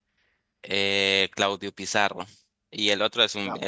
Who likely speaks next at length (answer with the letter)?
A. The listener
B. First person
B